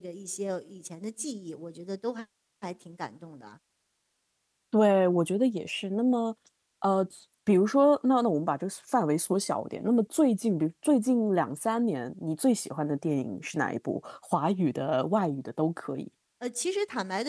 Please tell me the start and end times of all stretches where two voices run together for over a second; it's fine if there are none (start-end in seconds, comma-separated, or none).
none